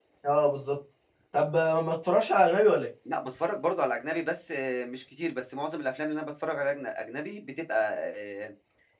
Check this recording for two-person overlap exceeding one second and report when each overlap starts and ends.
none

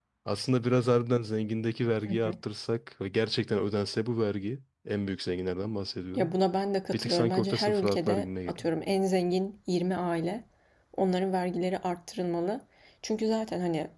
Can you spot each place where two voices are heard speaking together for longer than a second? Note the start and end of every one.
6.9-8.7

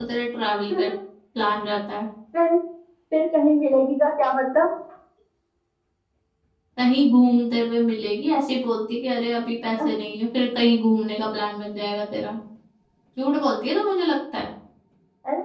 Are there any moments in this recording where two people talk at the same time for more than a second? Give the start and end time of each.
none

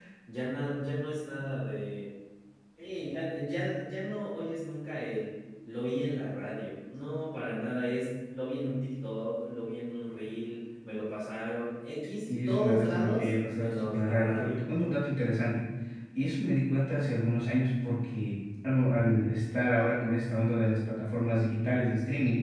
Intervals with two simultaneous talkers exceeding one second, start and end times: 12.4-14.6

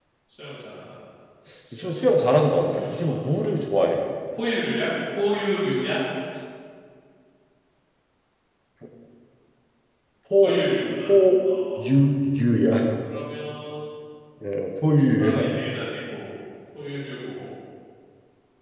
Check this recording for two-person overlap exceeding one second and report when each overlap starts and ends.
1.8-3.2

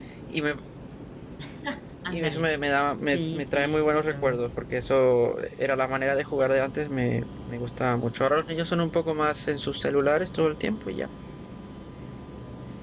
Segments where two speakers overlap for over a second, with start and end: 3.0-4.5

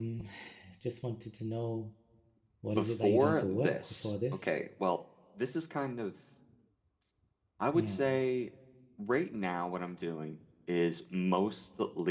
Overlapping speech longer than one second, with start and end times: 2.7-4.5

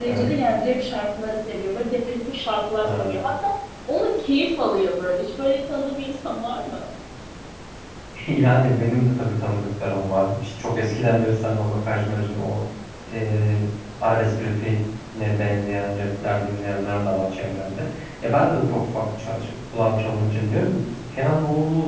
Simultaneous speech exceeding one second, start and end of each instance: none

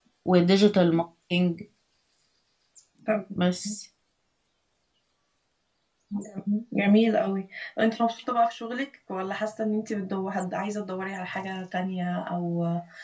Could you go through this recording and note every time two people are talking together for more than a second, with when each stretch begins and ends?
none

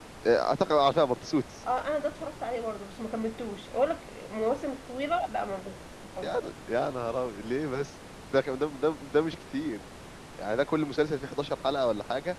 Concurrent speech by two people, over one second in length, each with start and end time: none

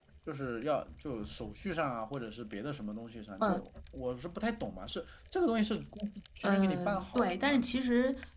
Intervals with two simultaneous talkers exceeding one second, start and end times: 6.4-7.7

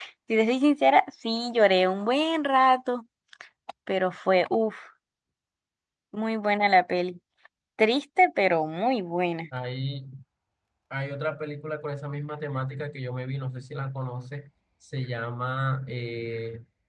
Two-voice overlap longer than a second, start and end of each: none

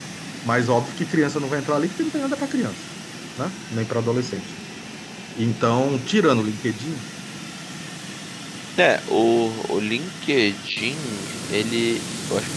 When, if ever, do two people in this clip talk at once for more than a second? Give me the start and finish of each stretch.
none

